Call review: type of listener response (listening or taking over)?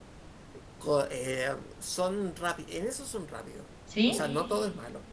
listening